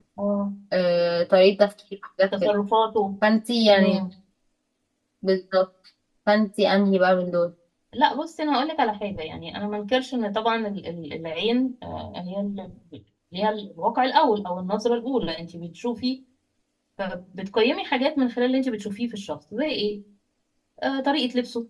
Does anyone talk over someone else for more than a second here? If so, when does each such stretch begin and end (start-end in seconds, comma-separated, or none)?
none